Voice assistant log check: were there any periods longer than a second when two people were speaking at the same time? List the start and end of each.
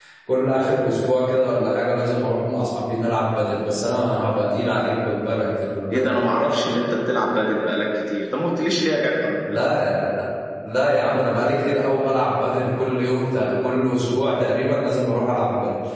none

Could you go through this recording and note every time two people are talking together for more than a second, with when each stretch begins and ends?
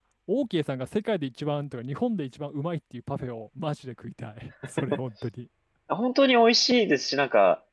none

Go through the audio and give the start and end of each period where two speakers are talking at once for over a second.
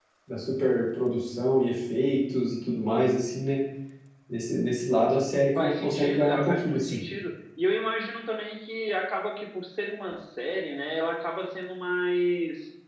5.6-7.0

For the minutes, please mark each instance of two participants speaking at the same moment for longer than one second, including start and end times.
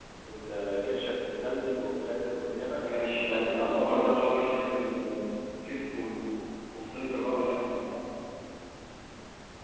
2.7-4.5

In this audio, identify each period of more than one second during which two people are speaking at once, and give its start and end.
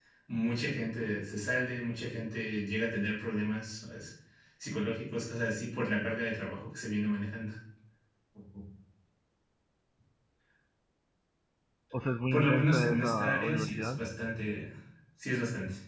12.3-14.0

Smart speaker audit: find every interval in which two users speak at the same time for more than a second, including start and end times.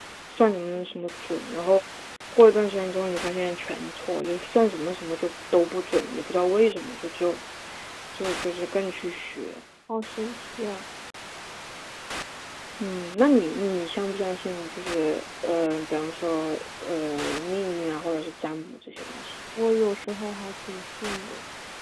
none

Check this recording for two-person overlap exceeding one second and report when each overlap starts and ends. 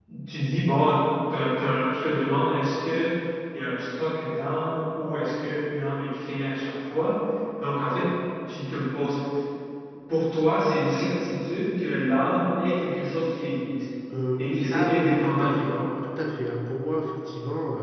14.4-15.8

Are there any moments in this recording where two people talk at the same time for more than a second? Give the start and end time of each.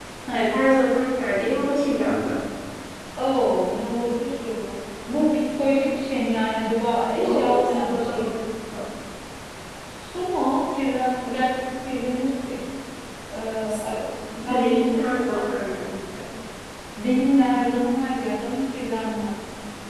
7.2-8.4

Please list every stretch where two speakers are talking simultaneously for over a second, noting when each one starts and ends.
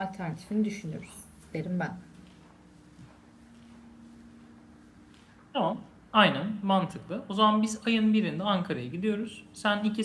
none

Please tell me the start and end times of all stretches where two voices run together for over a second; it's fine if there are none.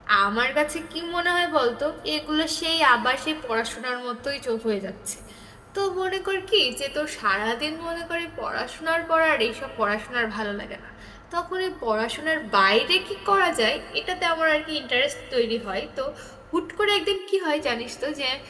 none

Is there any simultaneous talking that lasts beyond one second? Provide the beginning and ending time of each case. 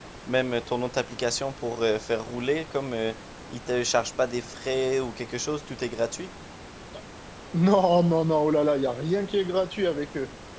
none

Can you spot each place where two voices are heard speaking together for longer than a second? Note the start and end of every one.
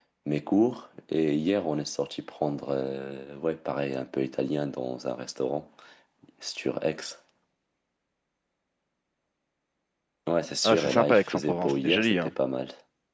10.6-12.3

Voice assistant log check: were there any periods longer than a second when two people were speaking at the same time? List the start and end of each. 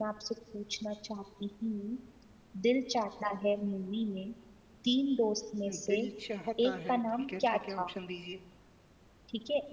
6.7-7.9

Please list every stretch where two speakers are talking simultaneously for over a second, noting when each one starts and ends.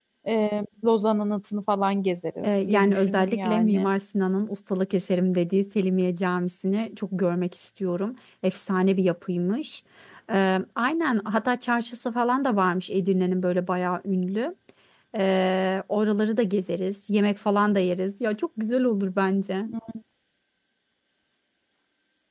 2.4-3.9

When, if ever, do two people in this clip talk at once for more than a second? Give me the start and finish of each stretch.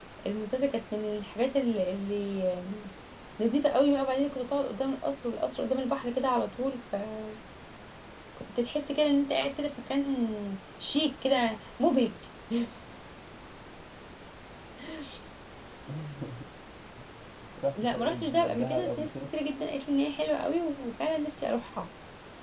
17.8-19.1

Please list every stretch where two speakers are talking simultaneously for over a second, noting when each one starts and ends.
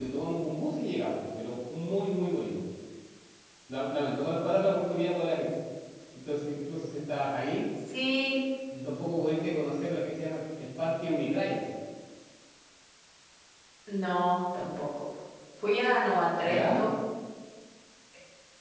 none

